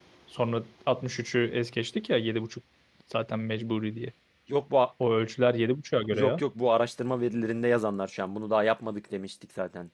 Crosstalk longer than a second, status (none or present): none